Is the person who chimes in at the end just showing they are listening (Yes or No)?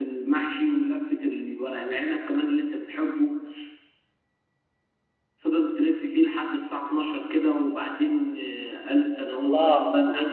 No